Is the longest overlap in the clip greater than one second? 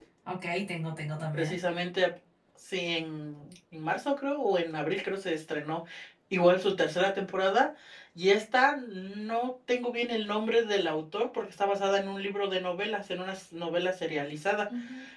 No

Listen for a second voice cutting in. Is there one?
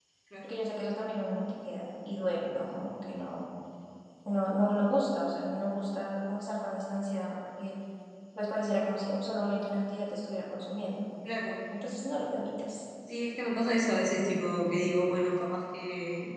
No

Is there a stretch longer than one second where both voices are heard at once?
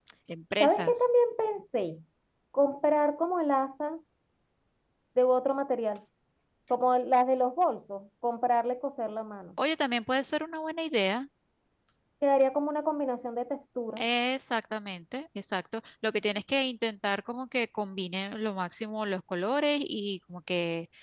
No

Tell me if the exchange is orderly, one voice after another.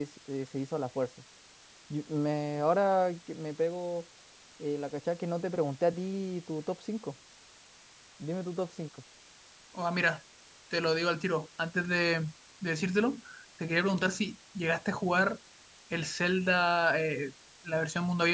Yes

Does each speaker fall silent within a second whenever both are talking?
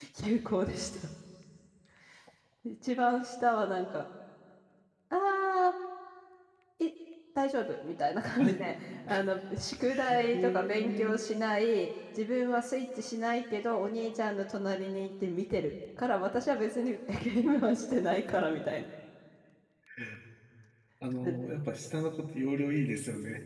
No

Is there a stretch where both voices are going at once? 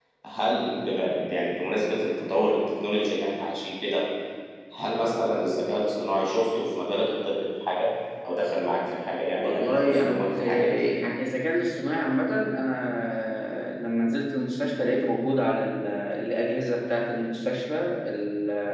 Yes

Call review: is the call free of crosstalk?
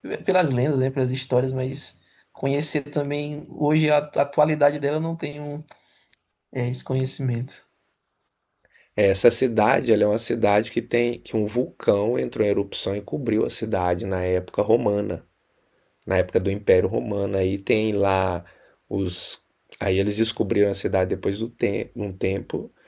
Yes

